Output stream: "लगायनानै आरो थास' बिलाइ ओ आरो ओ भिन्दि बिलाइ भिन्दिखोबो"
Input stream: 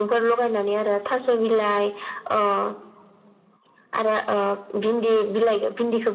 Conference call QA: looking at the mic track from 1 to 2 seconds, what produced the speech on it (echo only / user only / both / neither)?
echo only